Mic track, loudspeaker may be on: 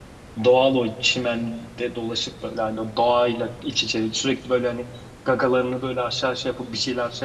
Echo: none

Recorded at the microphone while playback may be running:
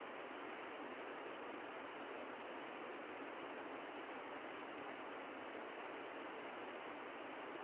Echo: none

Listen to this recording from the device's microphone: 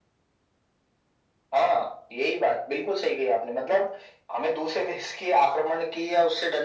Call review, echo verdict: present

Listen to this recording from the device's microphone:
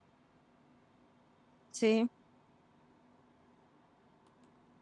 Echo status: none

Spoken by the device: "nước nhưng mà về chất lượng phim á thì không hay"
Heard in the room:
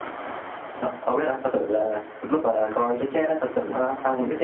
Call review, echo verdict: none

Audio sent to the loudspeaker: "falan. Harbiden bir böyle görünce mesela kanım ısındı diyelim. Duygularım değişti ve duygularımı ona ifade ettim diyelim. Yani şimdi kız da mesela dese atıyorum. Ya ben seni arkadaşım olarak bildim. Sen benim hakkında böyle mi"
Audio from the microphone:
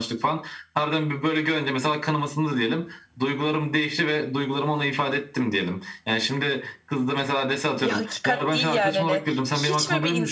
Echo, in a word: present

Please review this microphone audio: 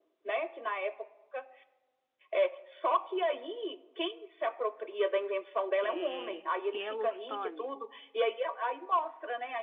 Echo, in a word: present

